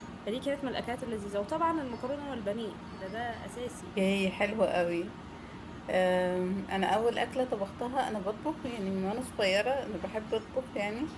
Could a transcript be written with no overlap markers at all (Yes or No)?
Yes